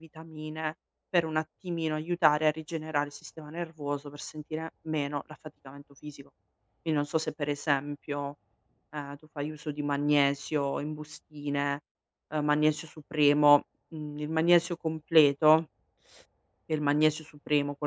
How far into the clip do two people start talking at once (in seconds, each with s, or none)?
none